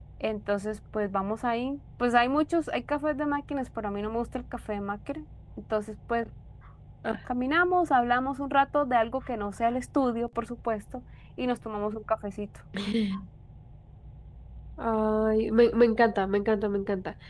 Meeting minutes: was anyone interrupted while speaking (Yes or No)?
No